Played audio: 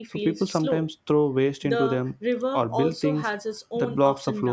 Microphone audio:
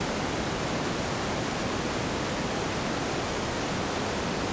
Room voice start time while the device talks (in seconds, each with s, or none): none